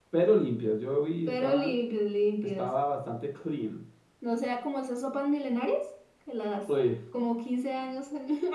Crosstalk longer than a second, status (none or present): none